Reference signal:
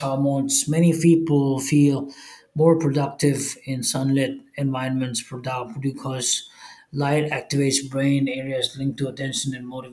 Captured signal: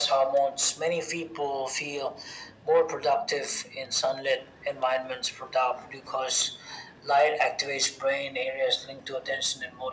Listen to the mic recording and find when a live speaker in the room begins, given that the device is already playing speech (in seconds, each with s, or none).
none